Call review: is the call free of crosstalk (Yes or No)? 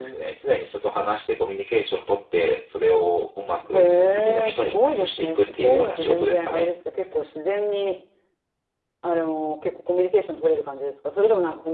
No